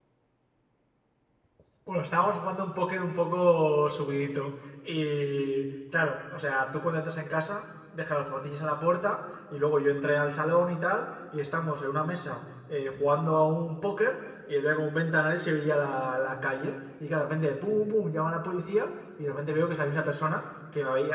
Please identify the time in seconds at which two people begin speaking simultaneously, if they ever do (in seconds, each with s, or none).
none